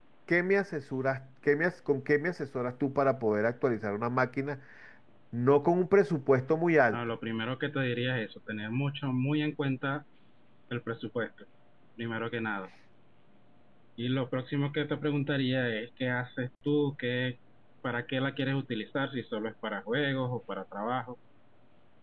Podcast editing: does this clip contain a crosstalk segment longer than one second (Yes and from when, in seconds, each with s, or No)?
No